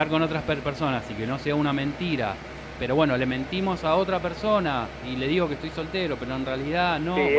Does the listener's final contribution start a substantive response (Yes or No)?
Yes